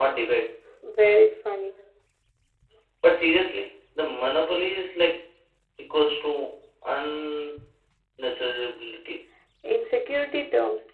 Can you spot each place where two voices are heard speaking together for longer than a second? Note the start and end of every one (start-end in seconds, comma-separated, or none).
none